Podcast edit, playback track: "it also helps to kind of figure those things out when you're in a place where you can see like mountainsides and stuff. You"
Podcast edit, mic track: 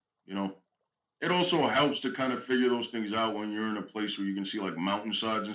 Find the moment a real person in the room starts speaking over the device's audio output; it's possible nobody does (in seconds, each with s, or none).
none